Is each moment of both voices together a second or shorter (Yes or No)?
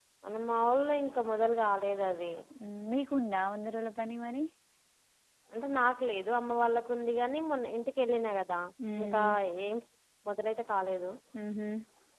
Yes